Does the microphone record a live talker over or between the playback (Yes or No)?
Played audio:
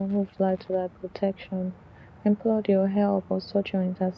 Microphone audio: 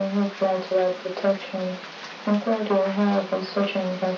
No